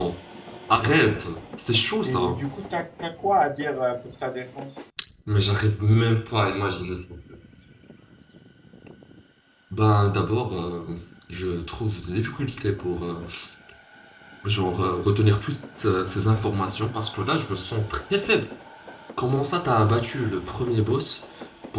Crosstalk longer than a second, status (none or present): none